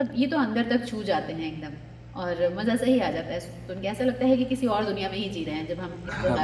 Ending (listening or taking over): taking over